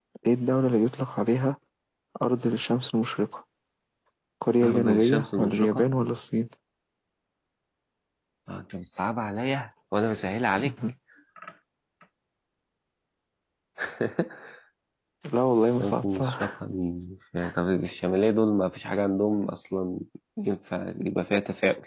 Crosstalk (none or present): present